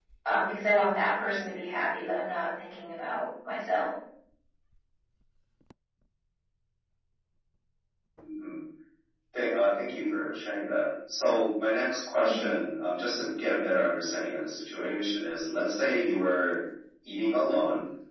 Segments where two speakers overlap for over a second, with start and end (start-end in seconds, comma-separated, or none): none